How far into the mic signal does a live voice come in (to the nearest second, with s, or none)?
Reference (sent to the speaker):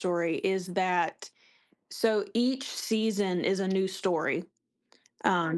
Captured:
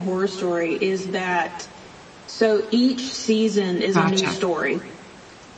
4 s